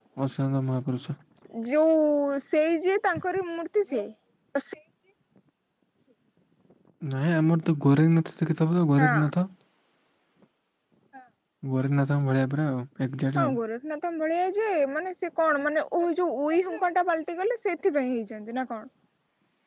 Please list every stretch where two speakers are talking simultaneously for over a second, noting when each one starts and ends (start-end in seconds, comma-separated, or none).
none